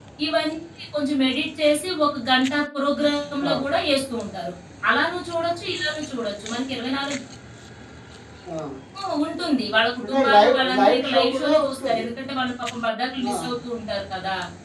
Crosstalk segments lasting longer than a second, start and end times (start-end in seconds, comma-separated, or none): 10.0-12.1